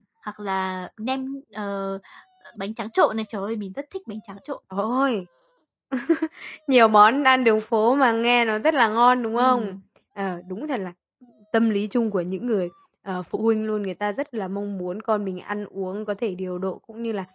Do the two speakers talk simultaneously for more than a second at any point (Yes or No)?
No